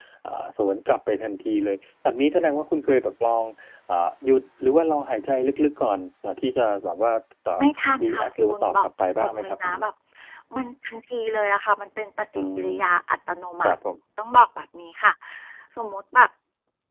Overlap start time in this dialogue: 8.0 s

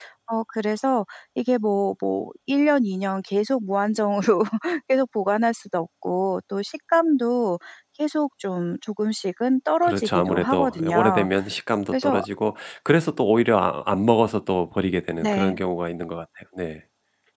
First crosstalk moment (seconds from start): 9.8 s

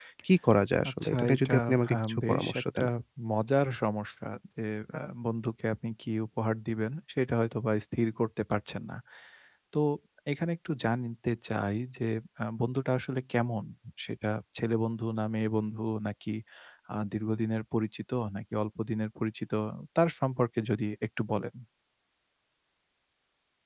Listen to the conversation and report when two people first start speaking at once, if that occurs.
0.9 s

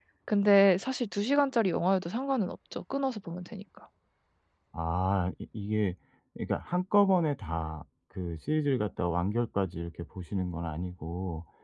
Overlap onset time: none

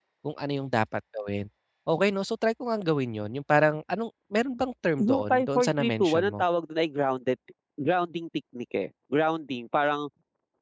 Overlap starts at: 5.0 s

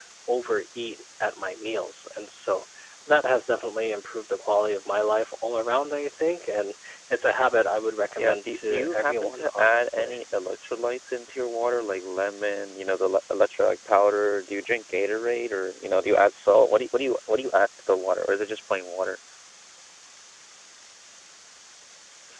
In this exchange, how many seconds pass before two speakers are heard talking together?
8.2 s

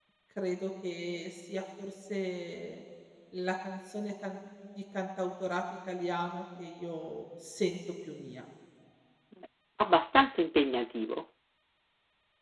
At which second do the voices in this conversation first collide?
none

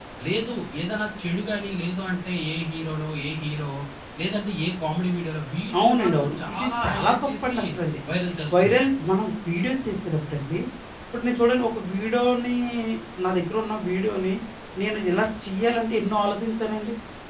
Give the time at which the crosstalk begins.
5.8 s

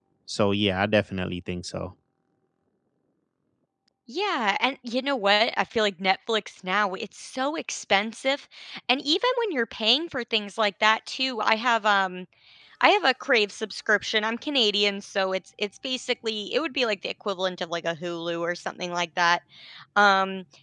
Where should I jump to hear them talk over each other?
none

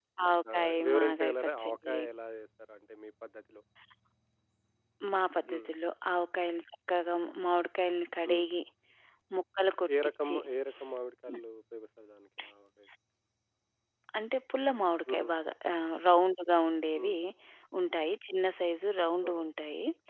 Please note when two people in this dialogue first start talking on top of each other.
0.5 s

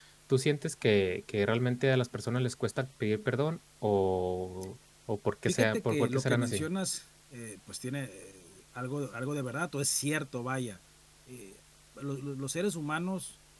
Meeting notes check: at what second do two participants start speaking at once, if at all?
5.4 s

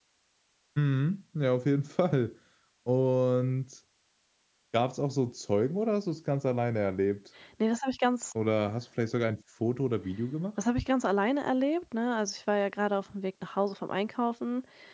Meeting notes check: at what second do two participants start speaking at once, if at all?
none

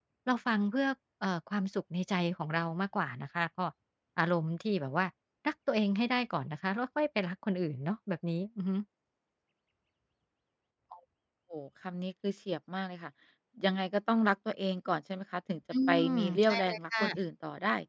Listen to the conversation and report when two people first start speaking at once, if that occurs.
15.7 s

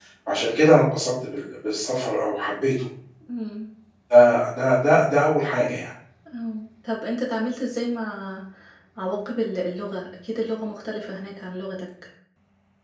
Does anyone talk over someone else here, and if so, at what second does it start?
none

